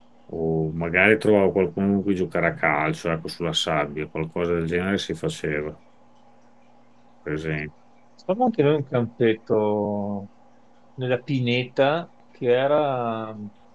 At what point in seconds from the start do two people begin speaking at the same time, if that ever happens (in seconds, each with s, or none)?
none